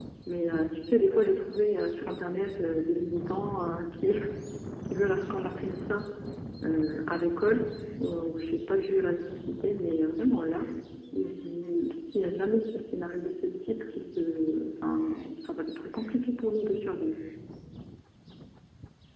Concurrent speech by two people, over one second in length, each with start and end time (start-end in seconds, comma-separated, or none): none